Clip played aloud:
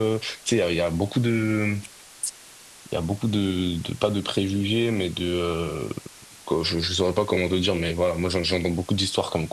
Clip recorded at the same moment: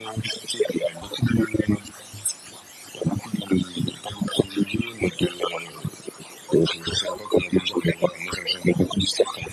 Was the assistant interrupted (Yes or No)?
No